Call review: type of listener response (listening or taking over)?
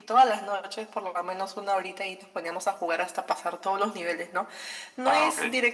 listening